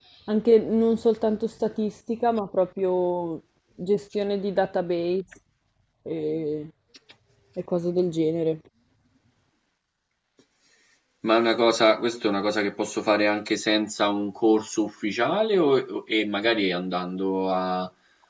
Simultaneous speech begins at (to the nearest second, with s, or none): none